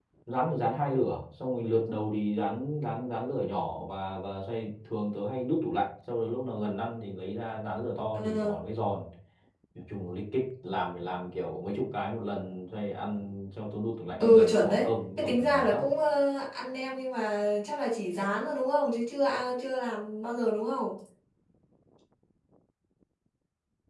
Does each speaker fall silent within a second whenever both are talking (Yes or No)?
No